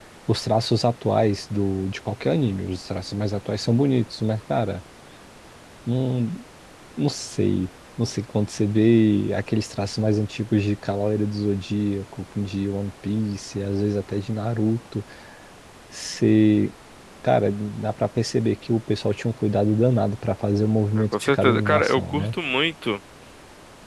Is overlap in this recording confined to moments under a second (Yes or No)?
No